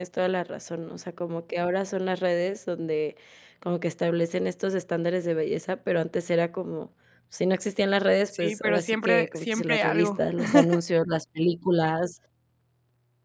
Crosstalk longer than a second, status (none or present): present